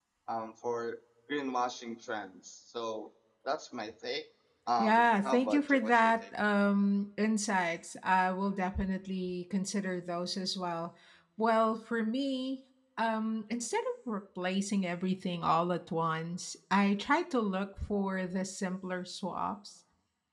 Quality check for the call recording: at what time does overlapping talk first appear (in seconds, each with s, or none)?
4.8 s